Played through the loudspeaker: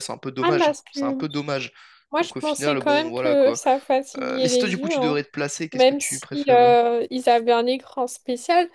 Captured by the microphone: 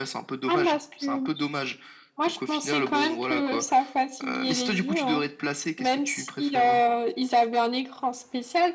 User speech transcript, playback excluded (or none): none